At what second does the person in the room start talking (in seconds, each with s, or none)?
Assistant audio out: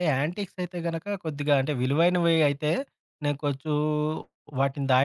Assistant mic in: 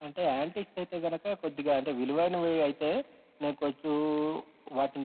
none